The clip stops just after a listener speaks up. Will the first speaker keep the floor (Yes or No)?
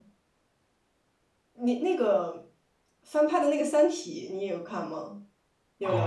No